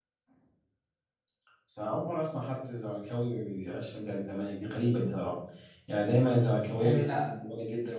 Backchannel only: Yes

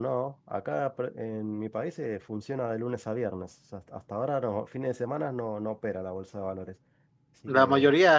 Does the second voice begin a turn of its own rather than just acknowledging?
Yes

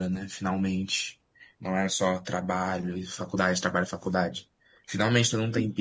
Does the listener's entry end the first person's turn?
No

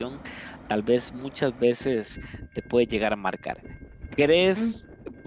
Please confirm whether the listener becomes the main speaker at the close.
No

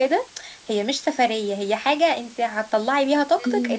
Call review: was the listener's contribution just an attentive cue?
Yes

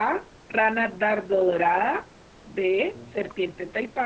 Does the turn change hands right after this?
No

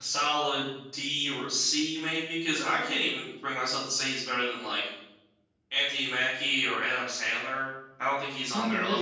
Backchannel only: No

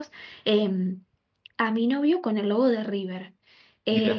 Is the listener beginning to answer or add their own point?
No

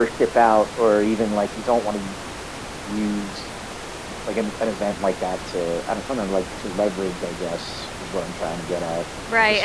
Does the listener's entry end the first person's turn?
Yes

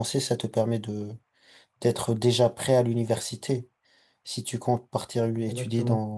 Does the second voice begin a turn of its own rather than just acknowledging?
No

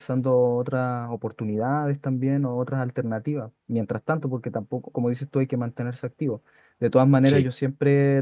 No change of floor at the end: Yes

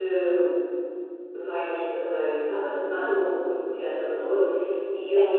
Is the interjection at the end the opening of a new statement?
No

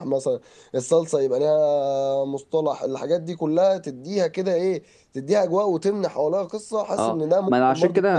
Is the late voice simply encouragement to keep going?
No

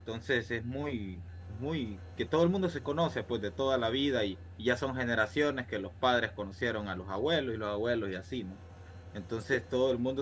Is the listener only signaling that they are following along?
Yes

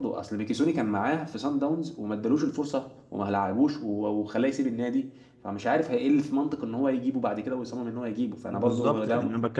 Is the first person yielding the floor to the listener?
Yes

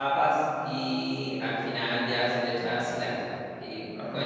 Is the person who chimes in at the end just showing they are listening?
Yes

